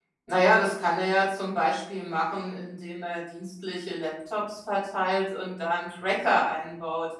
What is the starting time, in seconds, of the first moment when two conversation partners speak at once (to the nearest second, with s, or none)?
none